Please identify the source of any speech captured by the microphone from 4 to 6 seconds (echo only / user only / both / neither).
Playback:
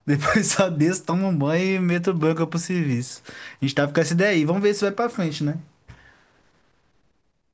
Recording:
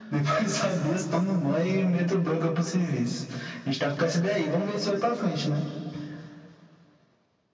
echo only